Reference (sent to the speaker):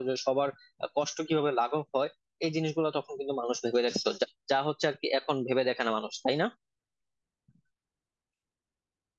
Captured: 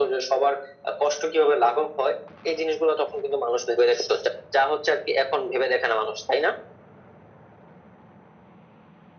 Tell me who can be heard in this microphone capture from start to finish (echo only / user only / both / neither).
echo only